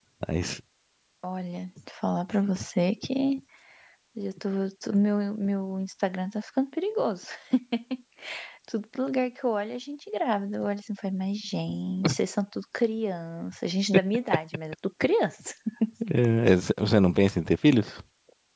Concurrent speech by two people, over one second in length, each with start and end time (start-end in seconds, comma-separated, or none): none